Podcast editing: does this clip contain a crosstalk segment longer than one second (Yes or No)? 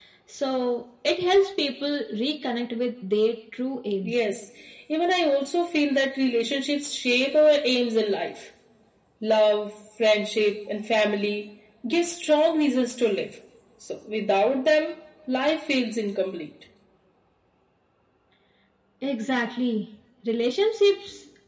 No